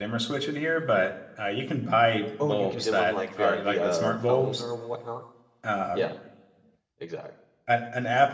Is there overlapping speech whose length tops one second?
Yes, from 2.4 s

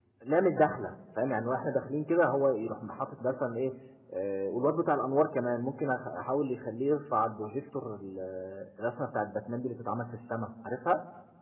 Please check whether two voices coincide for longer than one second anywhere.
No

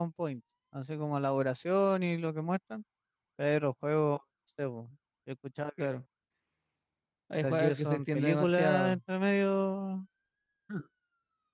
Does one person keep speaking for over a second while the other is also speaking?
Yes, from 7.3 s

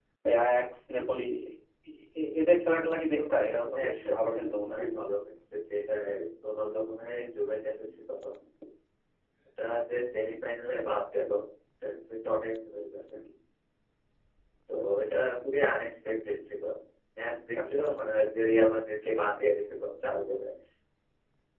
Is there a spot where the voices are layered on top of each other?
Yes, from 3.1 s

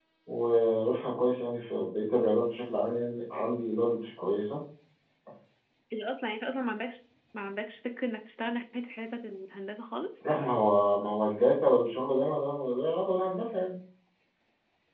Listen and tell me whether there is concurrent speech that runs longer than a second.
No

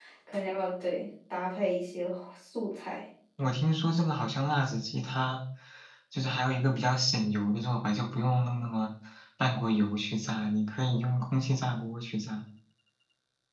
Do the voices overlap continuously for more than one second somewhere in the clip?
No

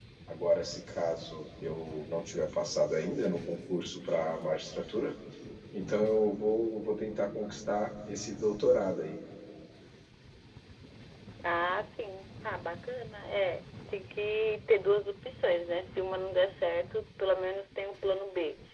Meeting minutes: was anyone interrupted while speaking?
No

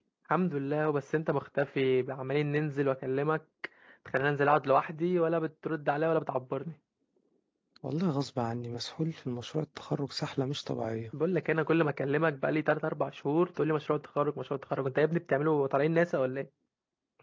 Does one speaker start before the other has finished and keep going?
No

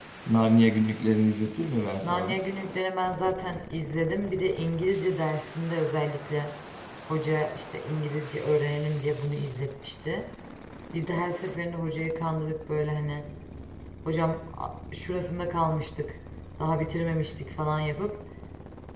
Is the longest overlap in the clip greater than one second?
No

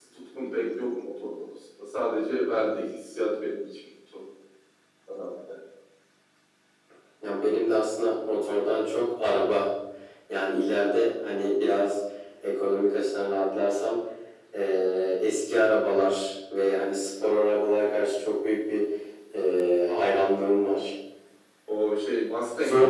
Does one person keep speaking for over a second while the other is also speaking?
No

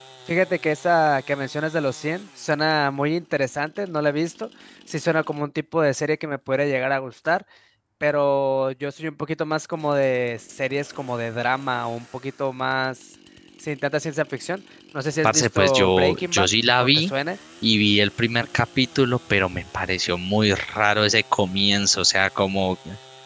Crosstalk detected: Yes, from 15.2 s

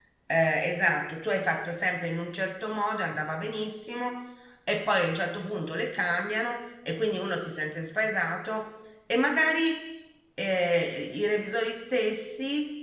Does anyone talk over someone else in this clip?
No

